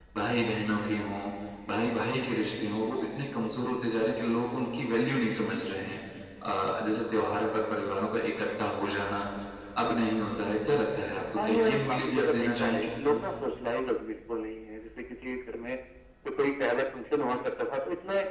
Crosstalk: present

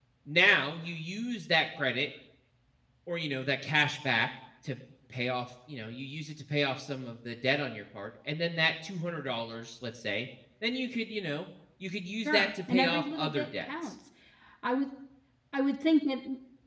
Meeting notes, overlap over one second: present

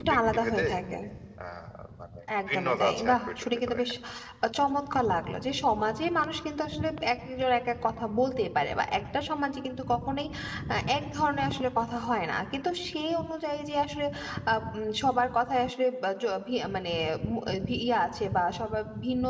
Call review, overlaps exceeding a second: present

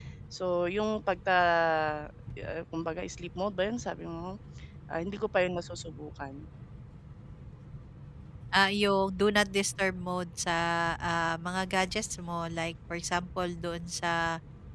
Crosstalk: none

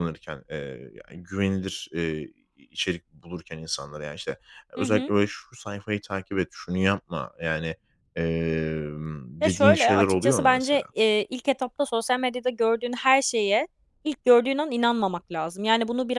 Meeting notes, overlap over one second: present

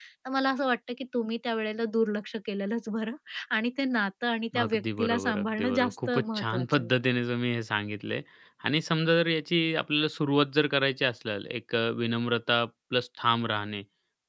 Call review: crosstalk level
present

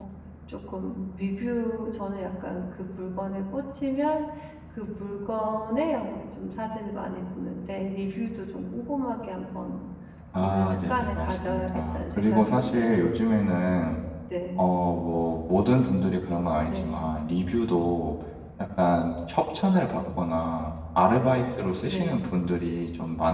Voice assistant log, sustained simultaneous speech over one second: present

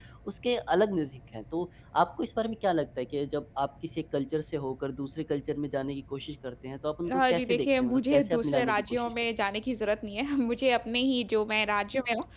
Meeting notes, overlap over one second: present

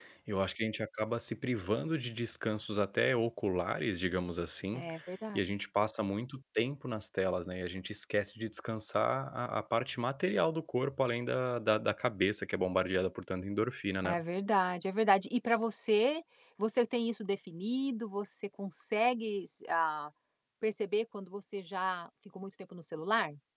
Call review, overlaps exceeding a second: none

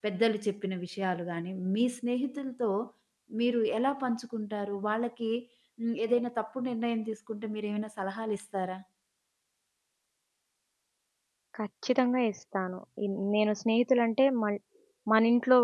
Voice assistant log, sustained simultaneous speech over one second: none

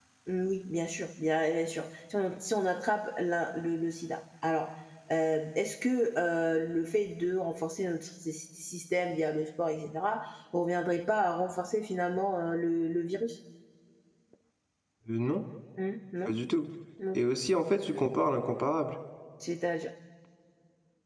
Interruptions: none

